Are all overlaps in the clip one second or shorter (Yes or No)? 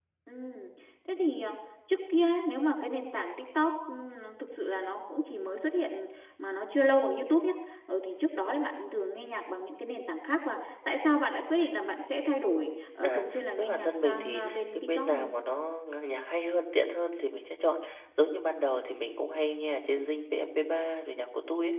No